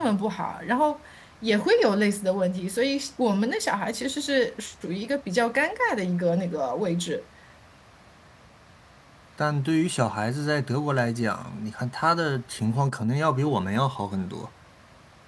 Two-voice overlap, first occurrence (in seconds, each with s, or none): none